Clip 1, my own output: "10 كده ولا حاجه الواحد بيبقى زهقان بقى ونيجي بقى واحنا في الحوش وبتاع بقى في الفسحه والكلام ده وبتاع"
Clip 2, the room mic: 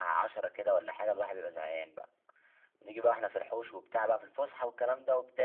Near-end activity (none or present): none